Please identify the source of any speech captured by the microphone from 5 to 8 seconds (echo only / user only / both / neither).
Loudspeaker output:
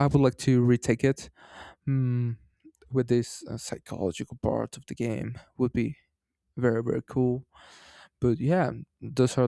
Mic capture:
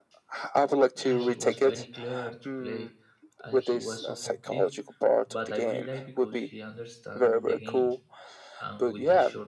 both